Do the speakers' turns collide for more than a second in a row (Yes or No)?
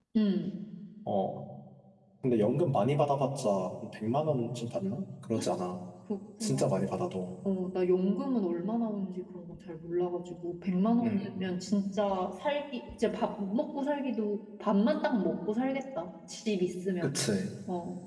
No